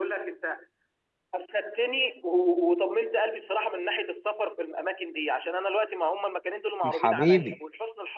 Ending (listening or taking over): listening